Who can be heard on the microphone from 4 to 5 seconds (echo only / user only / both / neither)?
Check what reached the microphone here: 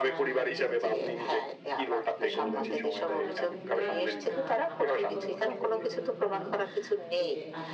both